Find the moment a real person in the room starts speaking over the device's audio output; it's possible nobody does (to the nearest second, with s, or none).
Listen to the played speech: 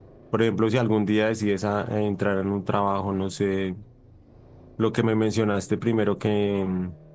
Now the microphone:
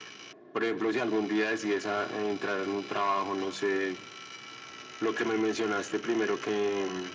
none